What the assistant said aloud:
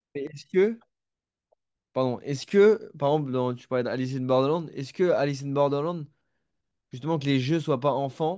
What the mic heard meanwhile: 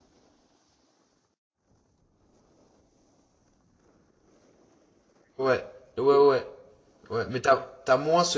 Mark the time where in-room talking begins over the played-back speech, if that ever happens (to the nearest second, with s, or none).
5 s